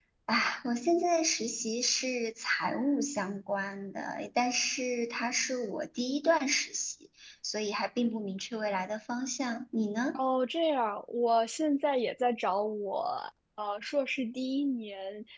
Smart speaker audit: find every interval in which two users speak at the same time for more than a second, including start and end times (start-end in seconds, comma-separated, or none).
none